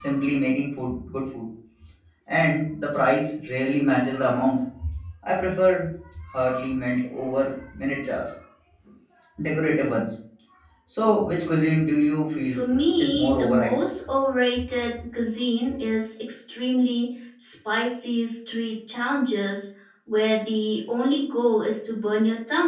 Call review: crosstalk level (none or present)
present